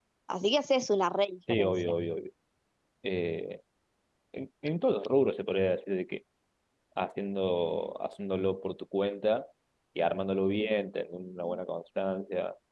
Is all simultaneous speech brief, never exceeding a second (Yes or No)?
Yes